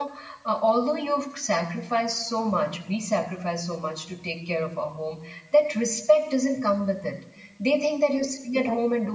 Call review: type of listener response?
listening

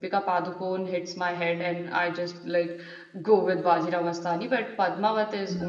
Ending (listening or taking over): listening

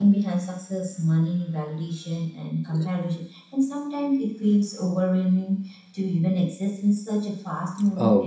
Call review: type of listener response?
taking over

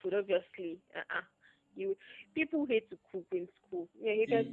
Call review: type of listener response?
taking over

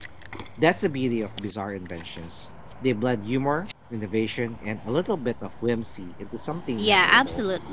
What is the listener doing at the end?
taking over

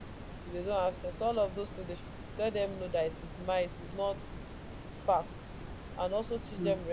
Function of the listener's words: listening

